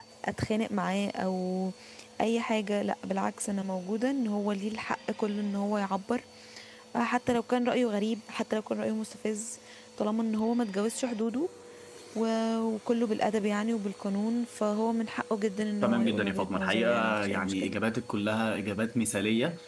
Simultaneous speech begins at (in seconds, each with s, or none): 15.8 s